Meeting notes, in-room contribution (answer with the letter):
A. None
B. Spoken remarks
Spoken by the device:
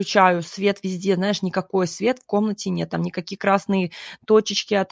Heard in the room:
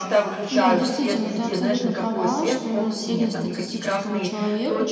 B